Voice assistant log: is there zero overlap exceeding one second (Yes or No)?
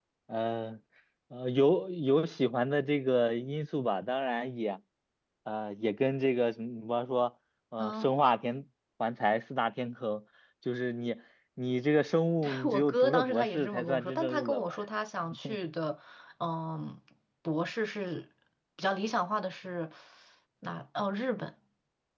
No